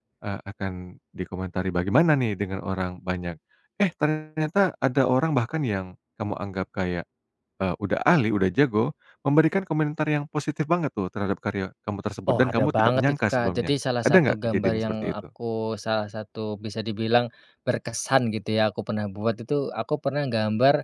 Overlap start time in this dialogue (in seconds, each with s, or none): 12.3 s